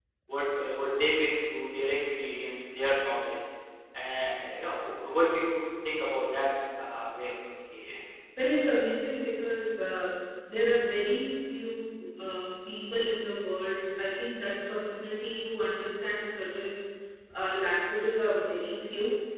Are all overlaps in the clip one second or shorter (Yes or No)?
Yes